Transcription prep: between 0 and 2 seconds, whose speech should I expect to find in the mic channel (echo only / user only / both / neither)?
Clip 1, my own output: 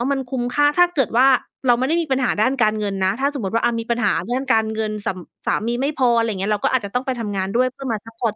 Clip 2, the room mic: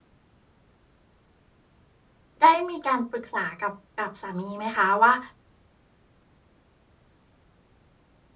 neither